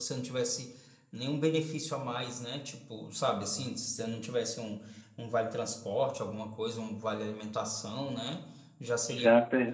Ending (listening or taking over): listening